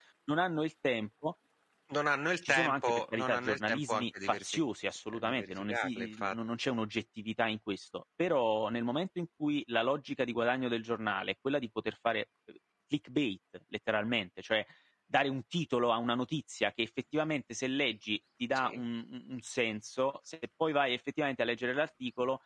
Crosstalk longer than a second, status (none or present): present